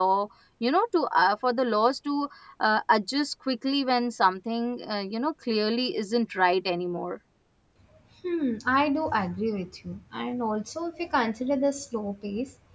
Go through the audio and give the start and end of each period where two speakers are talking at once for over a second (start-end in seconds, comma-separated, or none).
none